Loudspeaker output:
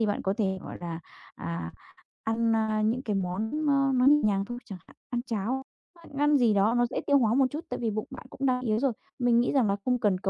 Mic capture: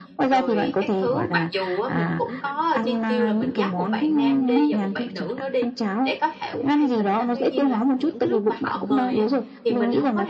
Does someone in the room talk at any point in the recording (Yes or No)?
Yes